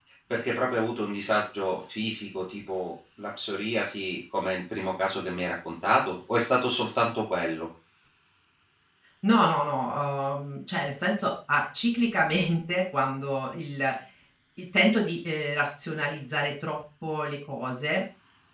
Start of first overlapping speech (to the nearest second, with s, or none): none